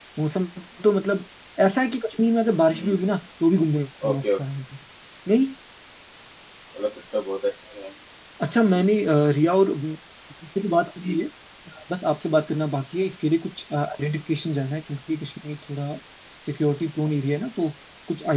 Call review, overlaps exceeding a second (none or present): none